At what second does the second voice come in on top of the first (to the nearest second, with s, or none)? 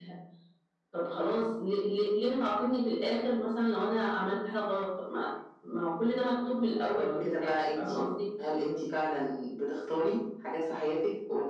7 s